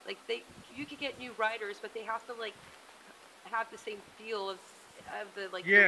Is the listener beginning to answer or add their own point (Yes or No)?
Yes